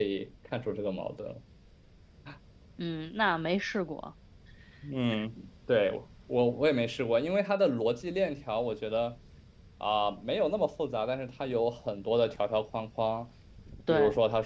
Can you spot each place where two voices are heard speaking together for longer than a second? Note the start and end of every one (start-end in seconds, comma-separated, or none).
none